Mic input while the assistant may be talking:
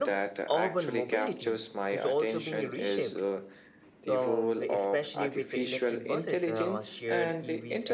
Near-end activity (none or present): present